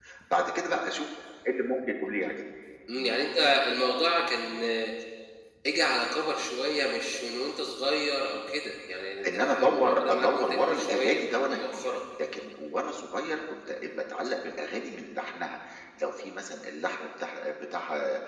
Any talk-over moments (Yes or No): Yes